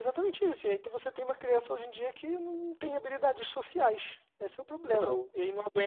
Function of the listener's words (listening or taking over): listening